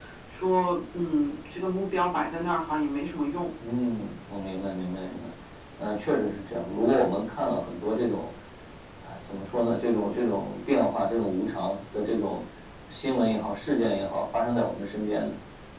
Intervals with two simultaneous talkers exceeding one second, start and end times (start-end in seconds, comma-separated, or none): none